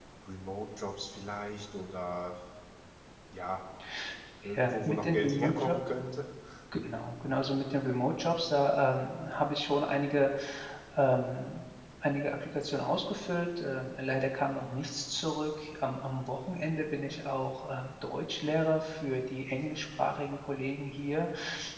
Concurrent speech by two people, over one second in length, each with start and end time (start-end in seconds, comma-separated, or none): 4.4-5.8